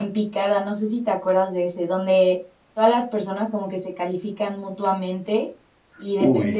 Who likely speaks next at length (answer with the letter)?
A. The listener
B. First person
B